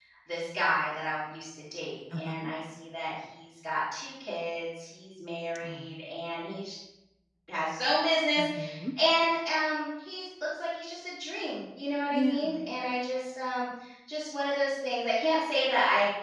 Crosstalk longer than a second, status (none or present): none